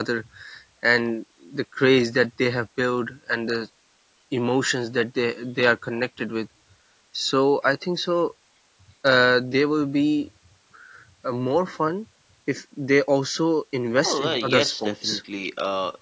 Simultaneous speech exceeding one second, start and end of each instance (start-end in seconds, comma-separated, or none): 14.0-15.2